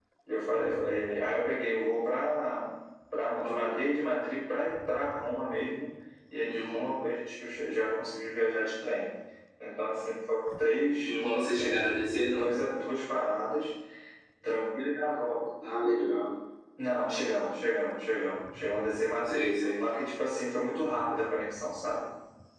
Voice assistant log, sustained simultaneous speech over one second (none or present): none